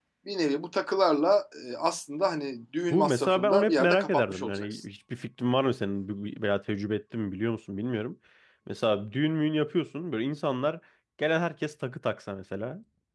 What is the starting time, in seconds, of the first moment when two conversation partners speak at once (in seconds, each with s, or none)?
2.9 s